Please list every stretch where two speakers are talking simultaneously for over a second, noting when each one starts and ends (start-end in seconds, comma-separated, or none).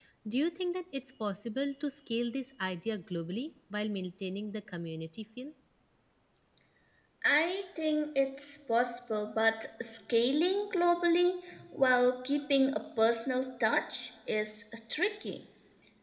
none